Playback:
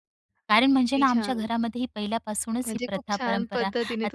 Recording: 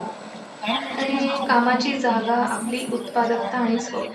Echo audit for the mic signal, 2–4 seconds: both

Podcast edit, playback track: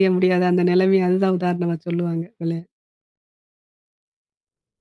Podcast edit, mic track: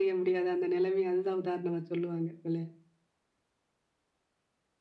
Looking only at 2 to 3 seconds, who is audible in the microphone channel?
echo only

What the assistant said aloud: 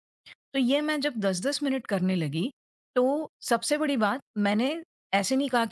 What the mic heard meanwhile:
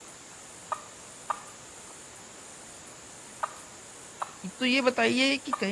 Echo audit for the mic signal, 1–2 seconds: neither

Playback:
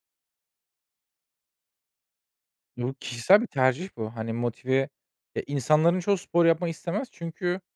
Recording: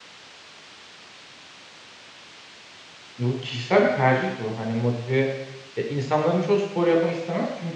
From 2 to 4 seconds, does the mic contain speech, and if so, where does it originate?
echo only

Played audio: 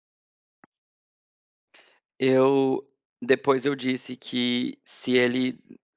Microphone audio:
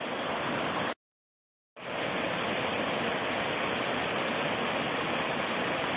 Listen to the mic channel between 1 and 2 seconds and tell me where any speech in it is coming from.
neither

